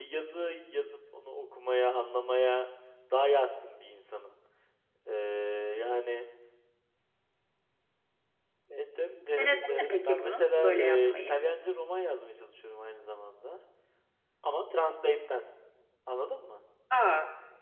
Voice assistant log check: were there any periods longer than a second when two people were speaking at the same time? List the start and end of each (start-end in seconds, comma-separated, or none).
9.4-11.4